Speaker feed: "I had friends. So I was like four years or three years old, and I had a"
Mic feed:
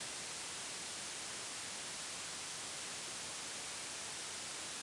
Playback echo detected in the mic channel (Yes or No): No